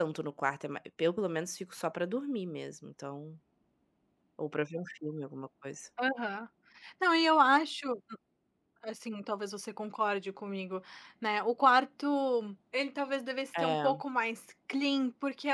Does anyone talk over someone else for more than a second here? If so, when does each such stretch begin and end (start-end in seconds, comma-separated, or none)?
none